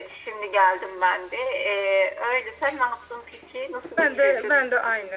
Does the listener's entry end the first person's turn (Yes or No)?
Yes